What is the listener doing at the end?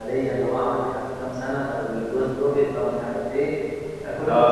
taking over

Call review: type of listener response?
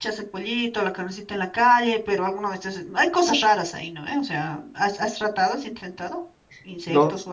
taking over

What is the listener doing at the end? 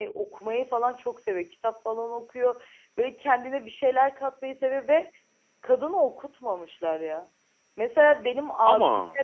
listening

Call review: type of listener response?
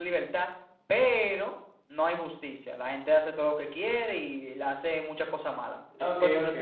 taking over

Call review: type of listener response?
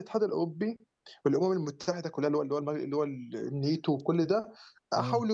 listening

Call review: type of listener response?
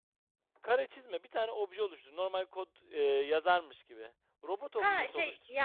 taking over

